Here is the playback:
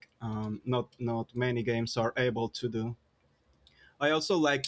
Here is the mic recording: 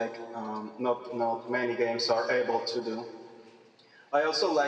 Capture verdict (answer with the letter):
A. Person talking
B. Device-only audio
B